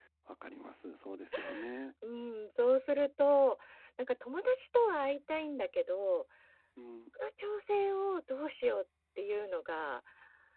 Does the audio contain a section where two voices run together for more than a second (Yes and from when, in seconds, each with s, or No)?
No